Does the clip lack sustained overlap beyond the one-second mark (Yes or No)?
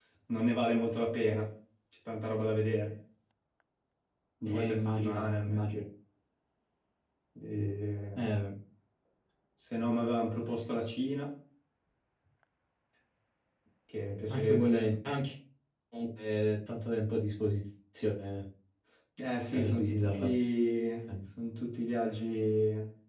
No